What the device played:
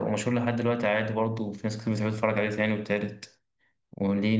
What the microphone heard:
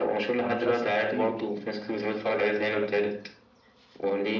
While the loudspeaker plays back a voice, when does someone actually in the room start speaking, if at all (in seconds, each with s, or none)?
0.4 s